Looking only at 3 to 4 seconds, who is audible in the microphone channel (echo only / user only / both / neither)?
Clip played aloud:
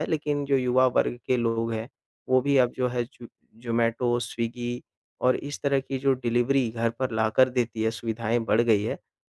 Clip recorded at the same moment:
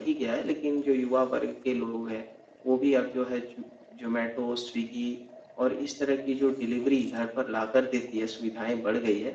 echo only